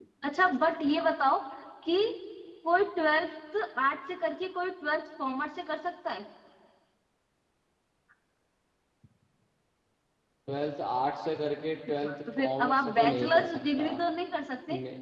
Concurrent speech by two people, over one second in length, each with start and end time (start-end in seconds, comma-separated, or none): 11.9-13.9